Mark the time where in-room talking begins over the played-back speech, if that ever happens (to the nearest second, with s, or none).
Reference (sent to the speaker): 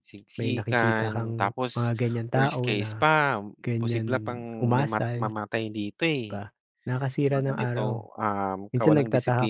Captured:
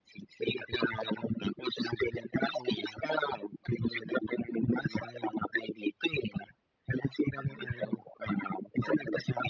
none